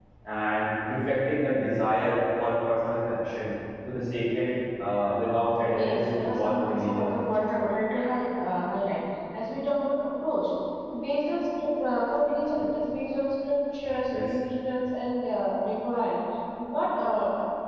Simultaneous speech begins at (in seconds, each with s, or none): 5.7 s